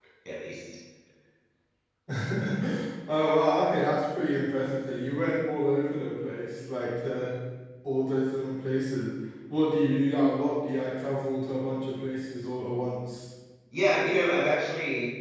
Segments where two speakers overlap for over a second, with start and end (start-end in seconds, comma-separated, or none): none